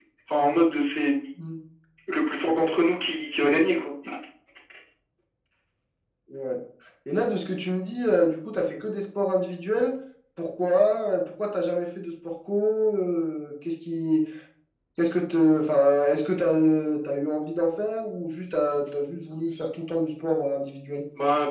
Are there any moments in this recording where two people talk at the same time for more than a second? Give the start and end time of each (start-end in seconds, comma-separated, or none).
none